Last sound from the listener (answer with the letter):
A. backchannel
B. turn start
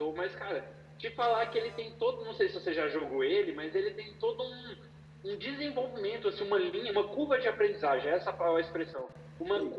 A